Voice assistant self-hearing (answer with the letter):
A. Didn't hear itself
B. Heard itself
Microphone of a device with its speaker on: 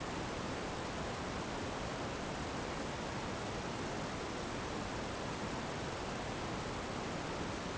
A